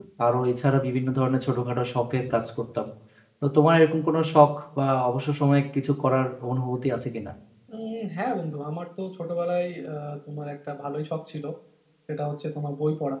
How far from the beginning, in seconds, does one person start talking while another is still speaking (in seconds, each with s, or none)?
none